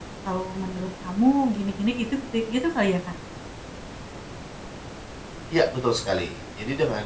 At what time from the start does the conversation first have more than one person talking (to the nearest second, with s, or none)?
none